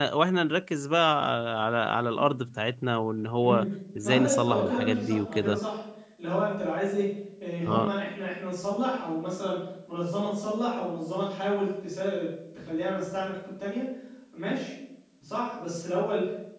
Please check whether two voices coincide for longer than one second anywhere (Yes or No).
Yes